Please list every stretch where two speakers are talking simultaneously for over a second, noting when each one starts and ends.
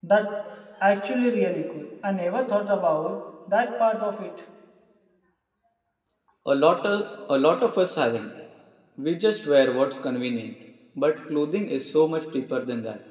none

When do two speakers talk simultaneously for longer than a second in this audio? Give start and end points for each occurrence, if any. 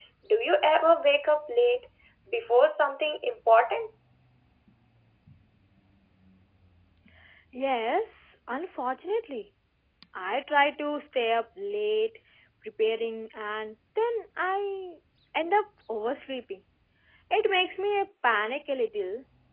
none

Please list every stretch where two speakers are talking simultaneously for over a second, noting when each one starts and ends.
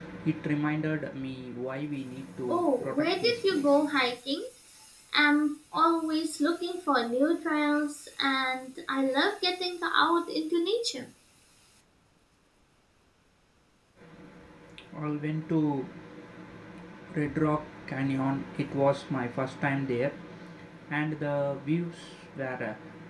2.5-3.8

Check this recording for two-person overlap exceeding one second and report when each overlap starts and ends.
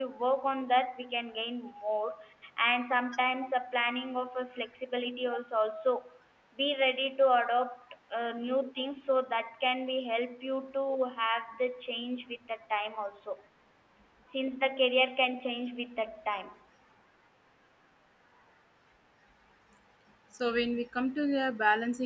none

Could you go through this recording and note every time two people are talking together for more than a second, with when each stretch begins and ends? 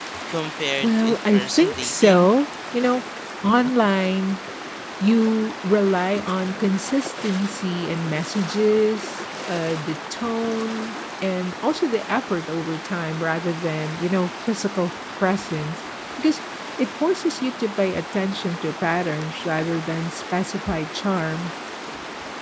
0.8-2.3

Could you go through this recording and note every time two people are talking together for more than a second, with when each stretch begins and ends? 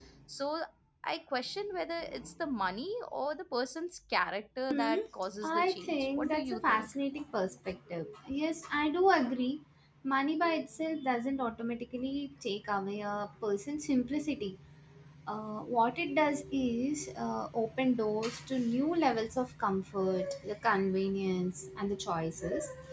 5.4-6.9

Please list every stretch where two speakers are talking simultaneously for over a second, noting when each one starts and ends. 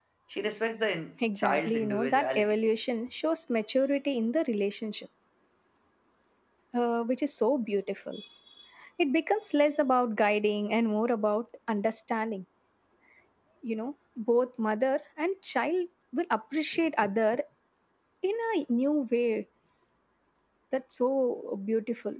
1.4-2.6

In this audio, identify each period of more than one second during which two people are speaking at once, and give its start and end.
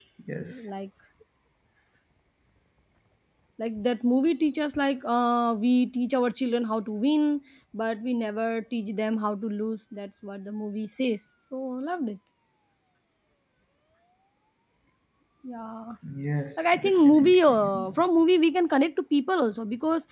16.8-18.0

